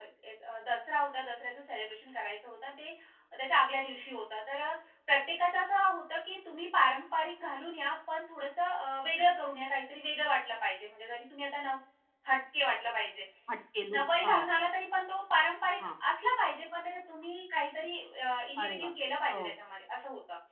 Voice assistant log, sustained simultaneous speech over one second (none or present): none